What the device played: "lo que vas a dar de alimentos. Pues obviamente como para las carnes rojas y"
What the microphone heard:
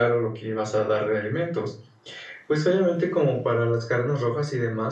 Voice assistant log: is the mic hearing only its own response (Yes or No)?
Yes